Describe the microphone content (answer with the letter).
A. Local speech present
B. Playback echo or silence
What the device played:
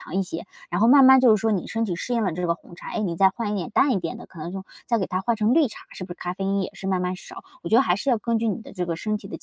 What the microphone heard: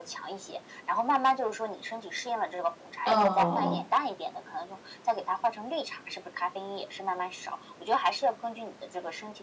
A